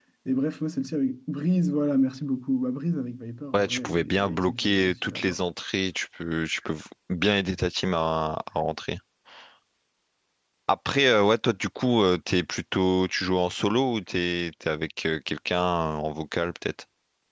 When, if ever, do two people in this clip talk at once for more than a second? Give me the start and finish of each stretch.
3.5-5.4

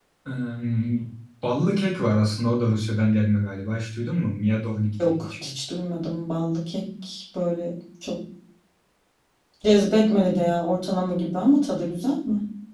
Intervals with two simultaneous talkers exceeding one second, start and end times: none

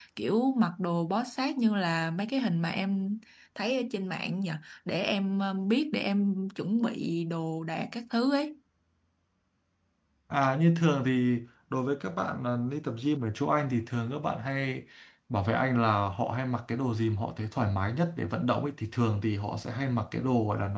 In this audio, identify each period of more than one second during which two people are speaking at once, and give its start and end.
none

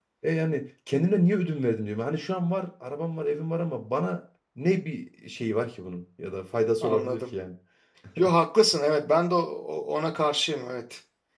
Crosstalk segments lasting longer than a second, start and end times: none

